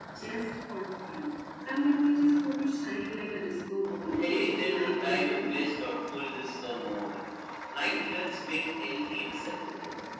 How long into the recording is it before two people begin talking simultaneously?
4.1 s

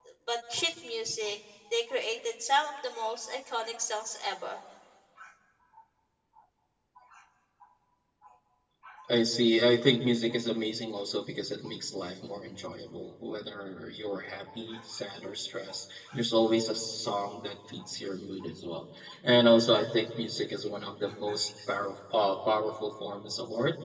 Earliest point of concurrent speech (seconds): none

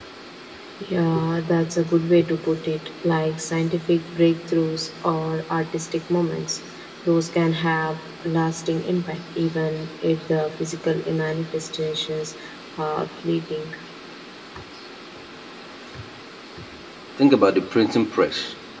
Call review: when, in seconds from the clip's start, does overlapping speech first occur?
none

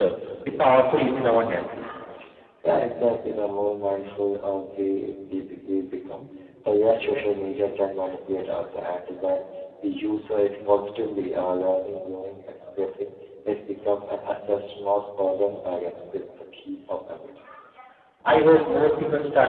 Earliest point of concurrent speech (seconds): none

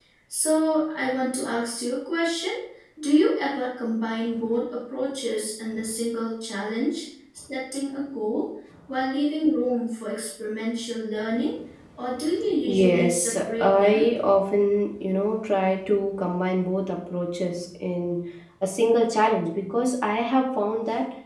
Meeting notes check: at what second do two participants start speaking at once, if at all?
12.7 s

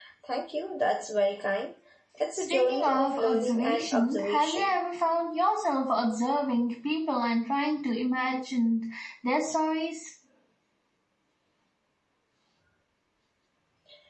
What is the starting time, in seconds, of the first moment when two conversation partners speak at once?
2.3 s

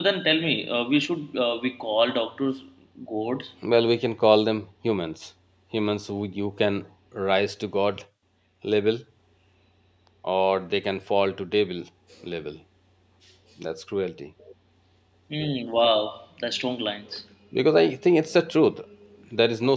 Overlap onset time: none

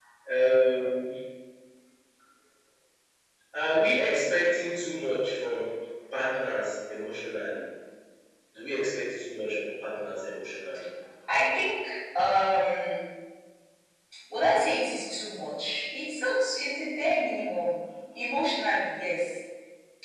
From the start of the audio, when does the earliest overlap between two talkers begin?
none

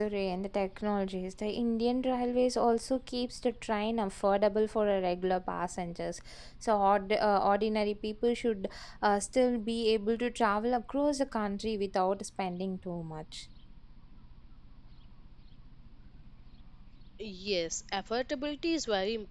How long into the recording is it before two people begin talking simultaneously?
none

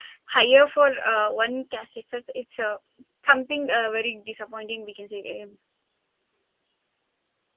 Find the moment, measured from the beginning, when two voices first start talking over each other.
none

